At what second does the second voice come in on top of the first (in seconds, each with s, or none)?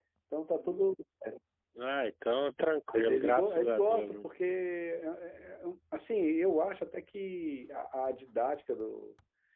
2.9 s